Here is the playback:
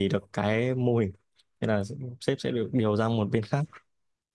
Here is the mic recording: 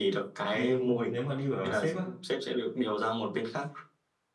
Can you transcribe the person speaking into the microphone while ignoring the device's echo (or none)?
đi nếu mà đi ở sếp á